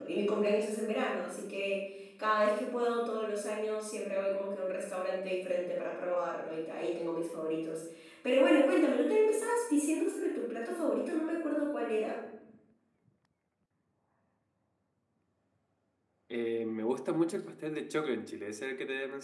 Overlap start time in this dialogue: none

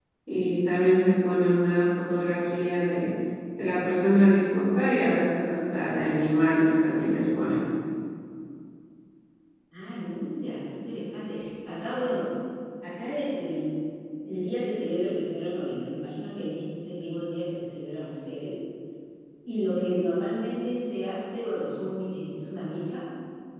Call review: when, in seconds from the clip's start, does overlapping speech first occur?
none

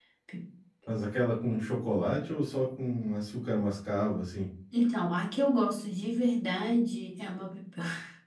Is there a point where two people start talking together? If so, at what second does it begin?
none

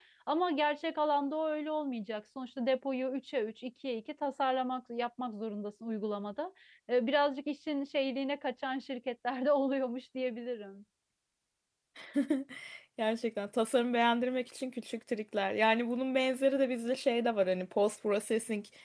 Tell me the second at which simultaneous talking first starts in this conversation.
none

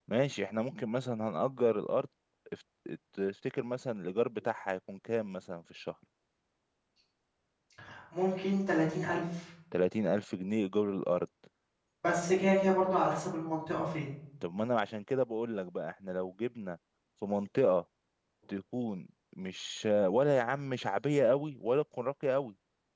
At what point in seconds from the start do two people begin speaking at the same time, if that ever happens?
none

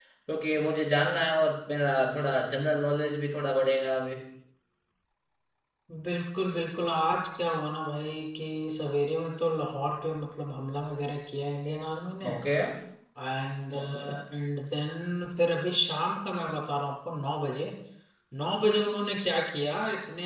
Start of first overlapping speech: none

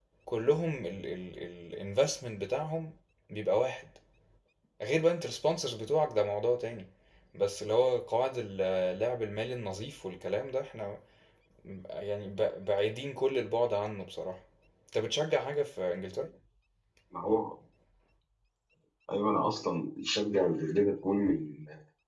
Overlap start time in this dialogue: none

